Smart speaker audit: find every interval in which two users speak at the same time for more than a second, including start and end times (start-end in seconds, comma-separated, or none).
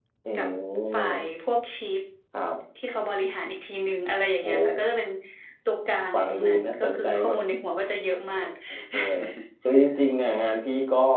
6.1-7.4